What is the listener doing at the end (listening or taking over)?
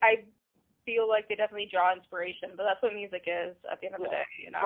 taking over